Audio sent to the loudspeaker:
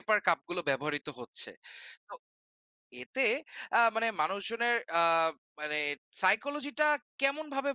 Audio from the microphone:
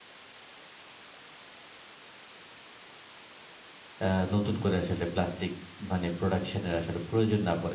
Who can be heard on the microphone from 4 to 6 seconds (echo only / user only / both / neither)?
user only